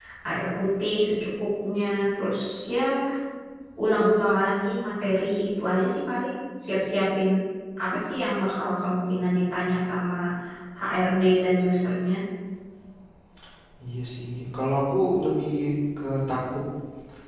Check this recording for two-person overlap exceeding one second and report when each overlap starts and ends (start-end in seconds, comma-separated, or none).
none